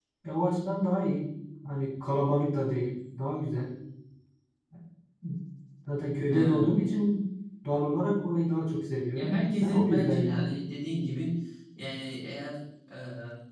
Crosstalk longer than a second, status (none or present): present